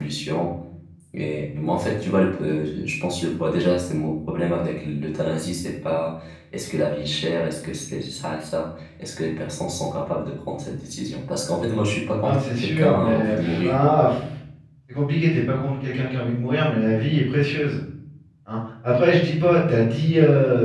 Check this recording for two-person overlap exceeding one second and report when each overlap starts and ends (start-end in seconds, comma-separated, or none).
12.2-13.8